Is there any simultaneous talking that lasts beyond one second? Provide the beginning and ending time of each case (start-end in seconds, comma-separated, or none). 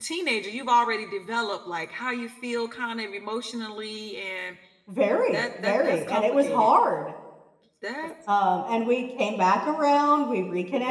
5.3-6.7